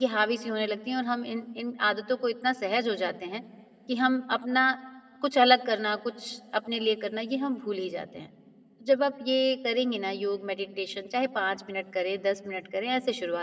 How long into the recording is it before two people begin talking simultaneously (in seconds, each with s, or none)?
none